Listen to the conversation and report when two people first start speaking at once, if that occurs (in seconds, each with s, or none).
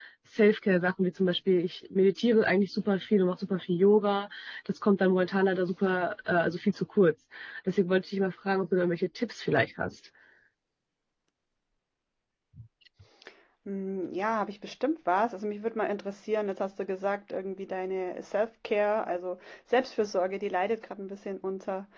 none